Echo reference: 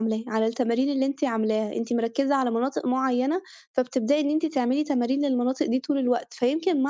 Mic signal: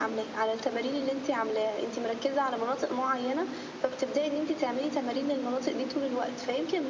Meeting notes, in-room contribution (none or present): none